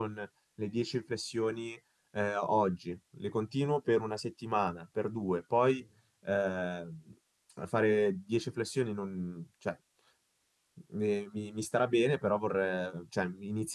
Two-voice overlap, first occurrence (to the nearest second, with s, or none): none